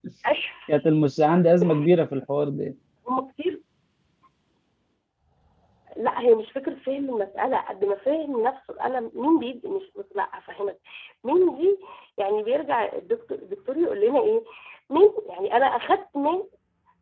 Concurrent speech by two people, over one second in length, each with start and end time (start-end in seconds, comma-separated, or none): none